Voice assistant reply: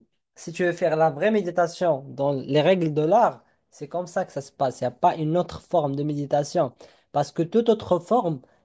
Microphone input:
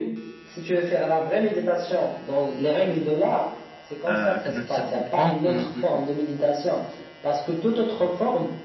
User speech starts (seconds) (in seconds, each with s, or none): 4.1 s